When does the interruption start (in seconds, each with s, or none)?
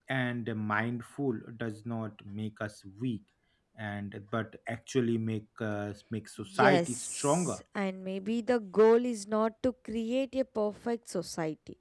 6.4 s